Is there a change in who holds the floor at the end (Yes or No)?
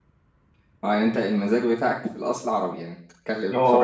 Yes